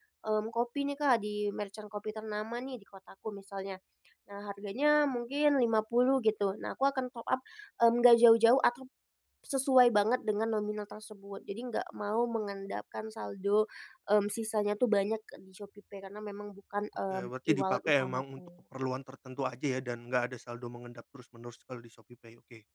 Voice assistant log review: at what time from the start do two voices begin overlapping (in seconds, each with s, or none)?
17.1 s